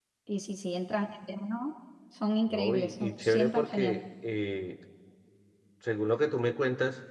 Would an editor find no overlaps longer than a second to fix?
No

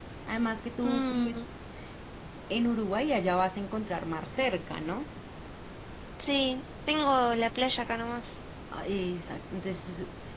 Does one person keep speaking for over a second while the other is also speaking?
No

